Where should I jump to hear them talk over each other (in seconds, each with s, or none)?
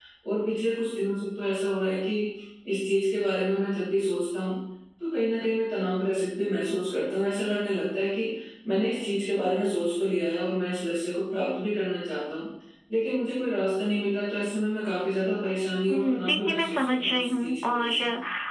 15.9 s